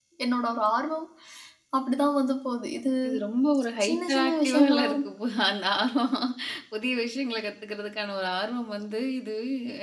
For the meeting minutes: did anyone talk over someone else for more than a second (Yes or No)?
Yes